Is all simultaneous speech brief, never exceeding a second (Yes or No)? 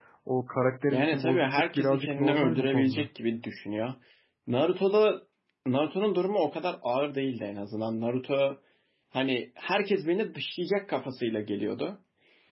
No